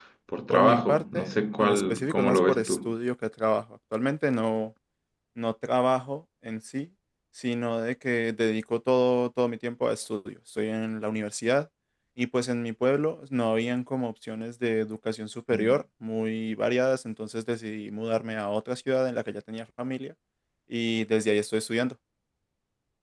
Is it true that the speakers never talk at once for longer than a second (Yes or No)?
No